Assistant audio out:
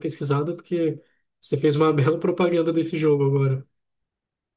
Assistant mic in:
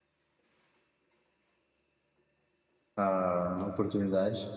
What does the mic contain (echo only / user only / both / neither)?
user only